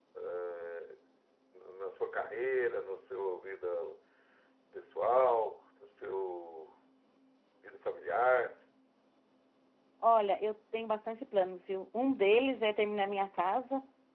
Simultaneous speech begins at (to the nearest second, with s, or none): none